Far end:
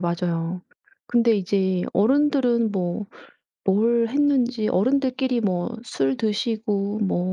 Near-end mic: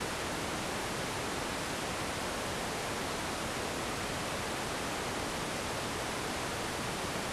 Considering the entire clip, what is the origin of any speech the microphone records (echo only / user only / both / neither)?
neither